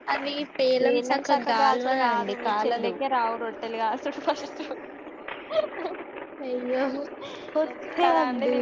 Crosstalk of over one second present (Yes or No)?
Yes